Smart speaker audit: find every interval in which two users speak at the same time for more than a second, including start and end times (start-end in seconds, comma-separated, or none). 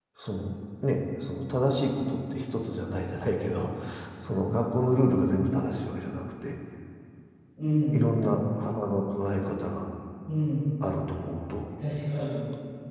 none